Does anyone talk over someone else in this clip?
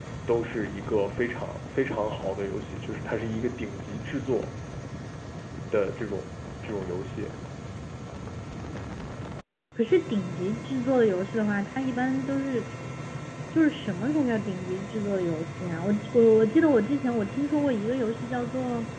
No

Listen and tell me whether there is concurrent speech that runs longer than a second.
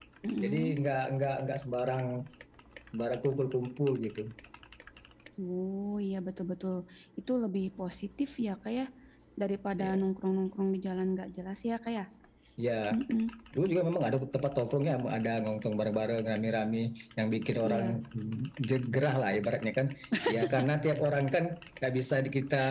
No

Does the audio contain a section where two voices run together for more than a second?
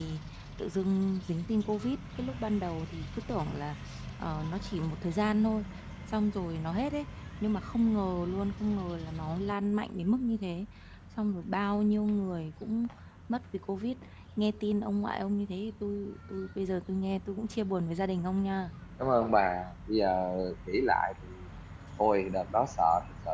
No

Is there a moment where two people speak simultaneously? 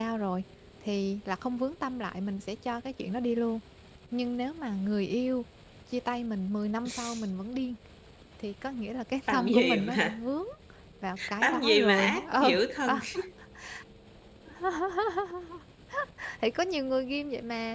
Yes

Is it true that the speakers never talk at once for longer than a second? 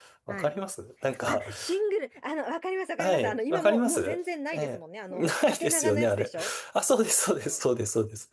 No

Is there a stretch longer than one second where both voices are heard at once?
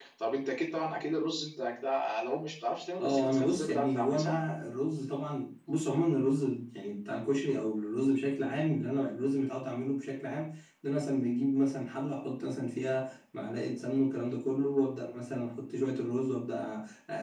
Yes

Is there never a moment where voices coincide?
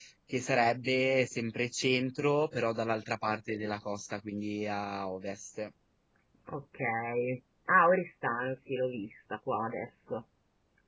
Yes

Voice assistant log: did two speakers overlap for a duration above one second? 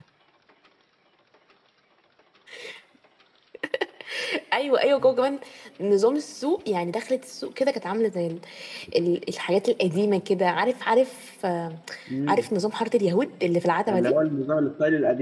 No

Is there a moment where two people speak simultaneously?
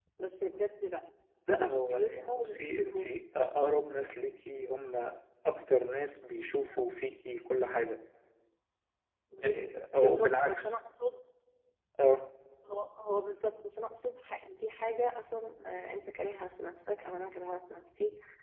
Yes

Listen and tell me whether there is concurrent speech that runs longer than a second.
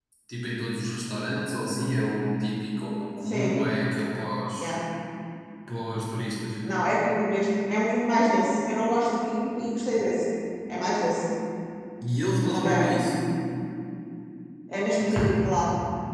No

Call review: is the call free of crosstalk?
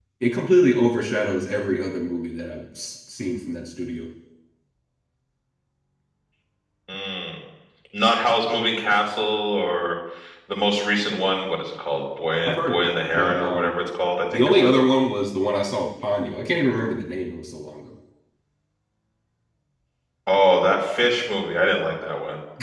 No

